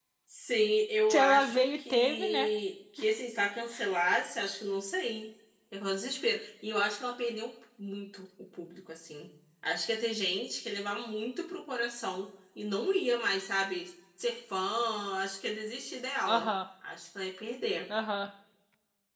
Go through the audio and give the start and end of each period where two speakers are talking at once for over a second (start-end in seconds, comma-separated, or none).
1.1-2.5